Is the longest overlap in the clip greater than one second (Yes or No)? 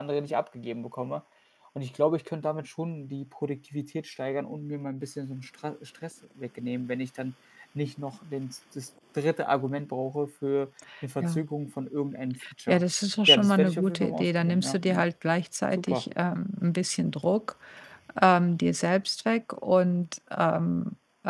Yes